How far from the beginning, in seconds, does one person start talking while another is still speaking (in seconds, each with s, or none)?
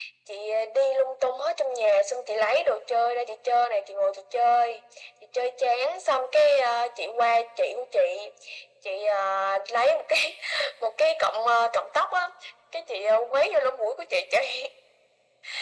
none